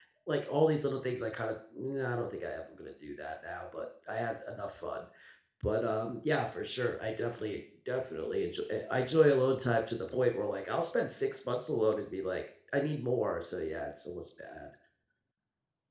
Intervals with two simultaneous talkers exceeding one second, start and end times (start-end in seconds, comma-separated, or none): none